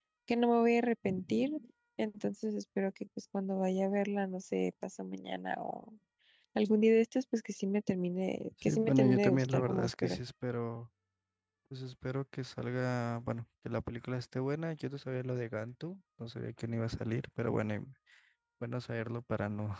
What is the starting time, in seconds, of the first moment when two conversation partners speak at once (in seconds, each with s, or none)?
8.6 s